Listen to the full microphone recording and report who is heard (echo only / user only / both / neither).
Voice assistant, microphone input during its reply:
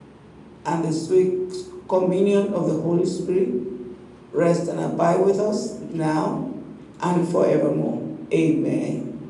user only